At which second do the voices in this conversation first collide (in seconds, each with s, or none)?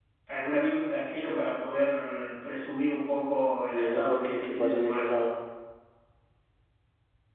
3.7 s